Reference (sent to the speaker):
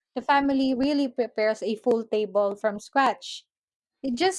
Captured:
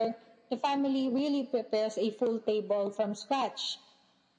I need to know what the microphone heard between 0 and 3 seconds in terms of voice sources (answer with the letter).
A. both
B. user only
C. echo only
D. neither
C